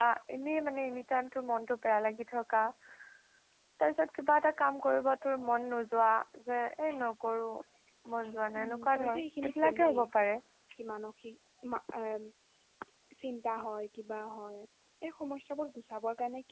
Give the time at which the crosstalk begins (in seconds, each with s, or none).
8.6 s